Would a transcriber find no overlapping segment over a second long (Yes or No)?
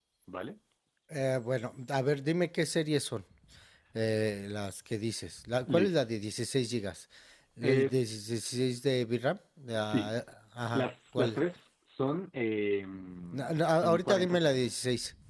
No